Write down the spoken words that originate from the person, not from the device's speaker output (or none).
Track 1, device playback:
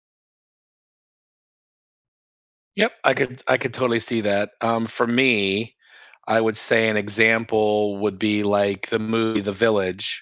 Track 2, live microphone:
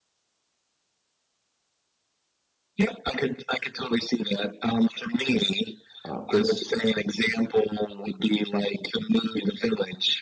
you know, uh, gets